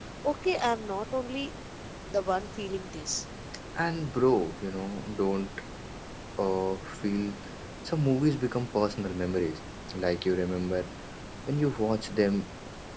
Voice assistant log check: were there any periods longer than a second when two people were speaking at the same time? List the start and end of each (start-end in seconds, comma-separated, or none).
none